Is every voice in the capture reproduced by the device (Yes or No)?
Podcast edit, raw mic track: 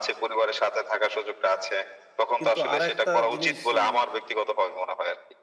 No